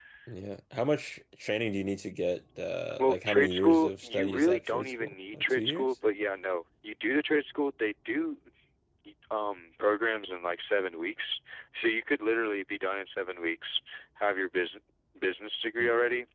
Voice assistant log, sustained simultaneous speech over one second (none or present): present